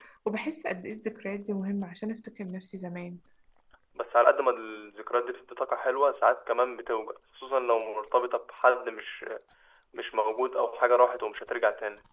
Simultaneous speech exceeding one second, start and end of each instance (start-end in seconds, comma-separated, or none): none